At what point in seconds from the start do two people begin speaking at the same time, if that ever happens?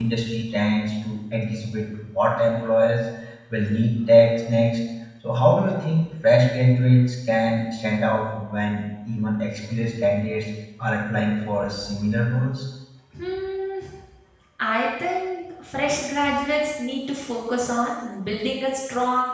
none

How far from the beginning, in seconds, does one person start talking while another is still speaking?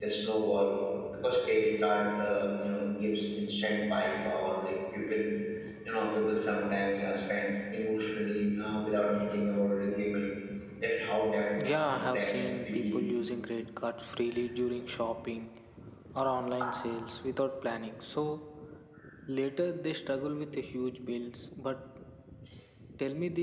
12 s

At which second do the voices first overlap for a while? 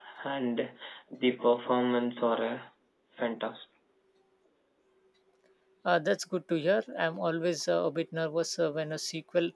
none

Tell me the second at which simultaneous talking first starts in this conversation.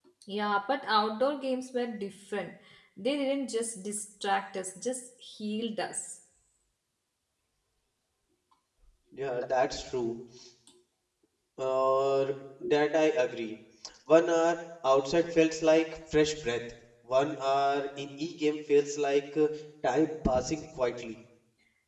none

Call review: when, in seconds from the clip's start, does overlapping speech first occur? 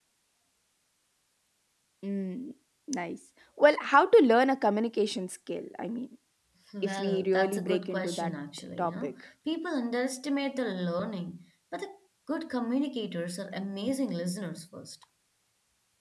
7 s

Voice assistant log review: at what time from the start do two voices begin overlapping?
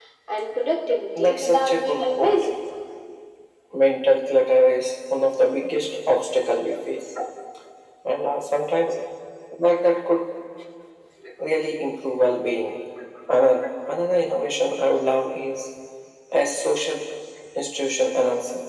1 s

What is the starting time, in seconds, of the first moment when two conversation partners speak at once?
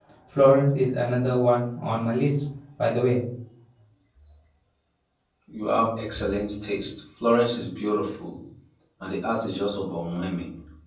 none

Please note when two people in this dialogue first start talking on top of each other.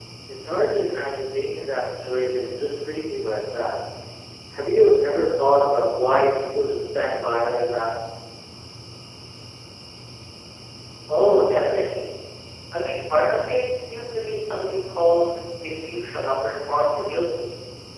none

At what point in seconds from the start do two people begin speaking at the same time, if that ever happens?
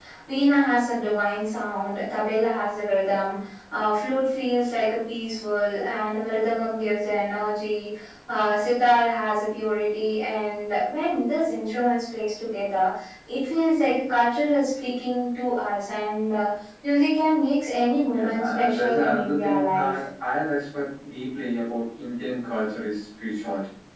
18 s

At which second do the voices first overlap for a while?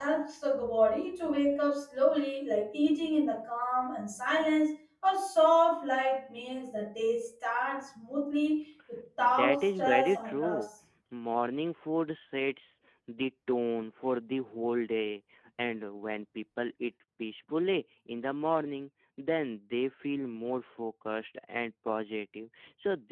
9 s

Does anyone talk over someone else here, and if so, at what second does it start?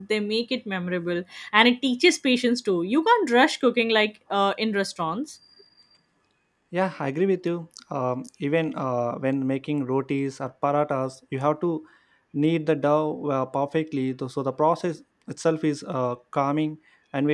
none

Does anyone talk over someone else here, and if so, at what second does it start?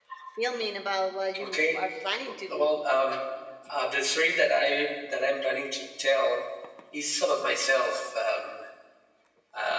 1 s

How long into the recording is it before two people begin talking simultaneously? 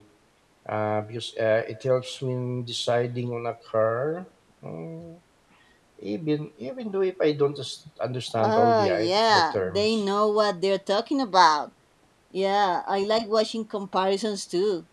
8 s

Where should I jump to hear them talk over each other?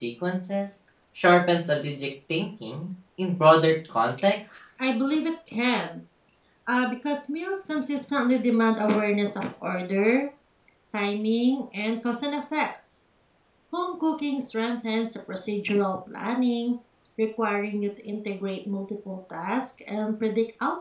none

